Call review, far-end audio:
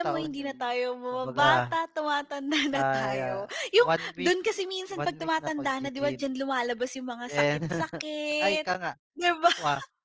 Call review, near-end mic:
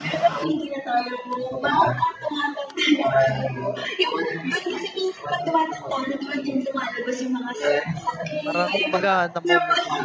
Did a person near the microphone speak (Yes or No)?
Yes